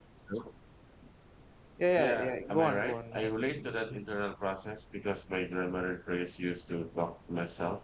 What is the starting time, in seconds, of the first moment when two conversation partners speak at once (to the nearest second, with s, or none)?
2 s